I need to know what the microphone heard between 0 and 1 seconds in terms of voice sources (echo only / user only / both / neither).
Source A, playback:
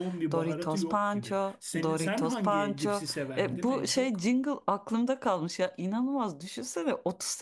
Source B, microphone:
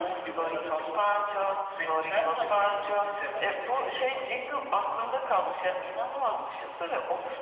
echo only